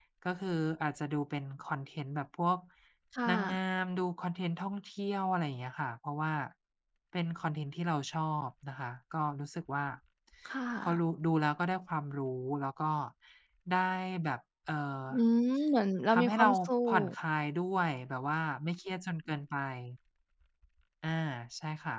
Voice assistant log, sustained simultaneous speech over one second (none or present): none